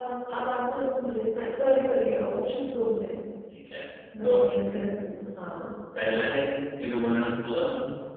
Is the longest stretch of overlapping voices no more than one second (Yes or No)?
Yes